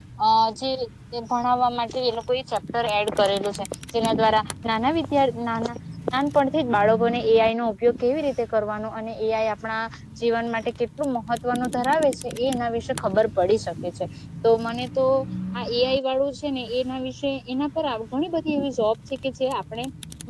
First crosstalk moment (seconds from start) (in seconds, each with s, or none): none